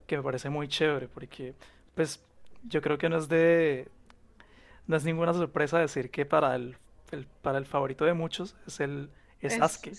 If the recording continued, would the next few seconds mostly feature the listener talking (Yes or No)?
Yes